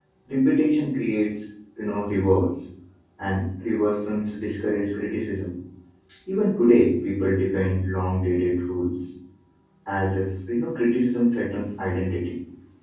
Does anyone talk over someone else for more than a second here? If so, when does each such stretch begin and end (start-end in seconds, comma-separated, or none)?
none